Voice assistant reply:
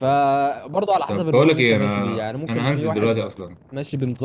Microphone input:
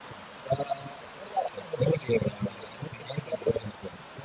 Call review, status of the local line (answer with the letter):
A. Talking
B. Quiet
B